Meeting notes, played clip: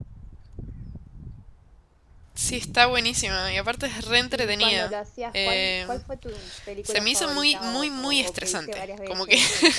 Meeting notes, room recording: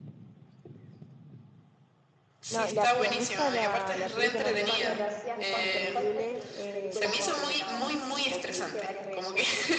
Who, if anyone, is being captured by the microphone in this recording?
both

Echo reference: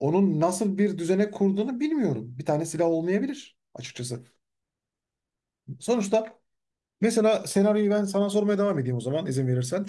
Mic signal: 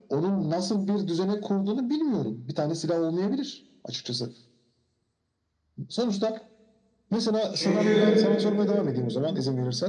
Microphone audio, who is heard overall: both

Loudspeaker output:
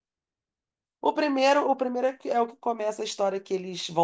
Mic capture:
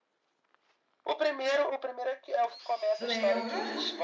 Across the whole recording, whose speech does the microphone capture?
both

